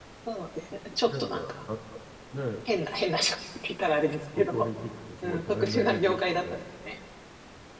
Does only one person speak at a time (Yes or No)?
No